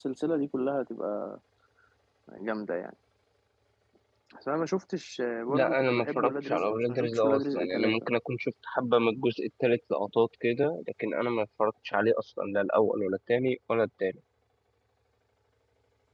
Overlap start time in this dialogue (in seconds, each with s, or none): 5.5 s